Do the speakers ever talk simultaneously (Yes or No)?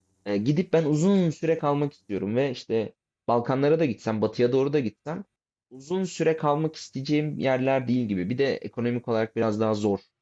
No